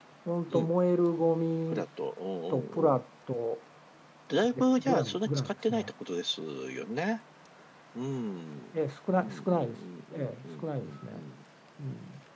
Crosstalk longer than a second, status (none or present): present